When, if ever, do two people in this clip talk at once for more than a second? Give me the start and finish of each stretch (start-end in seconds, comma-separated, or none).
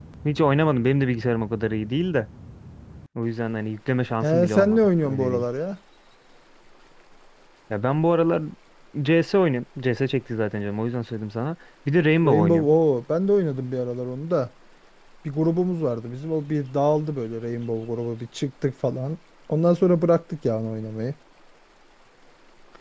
4.2-5.4